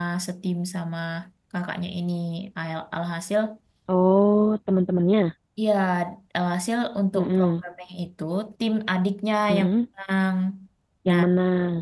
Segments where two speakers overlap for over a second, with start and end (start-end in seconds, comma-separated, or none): none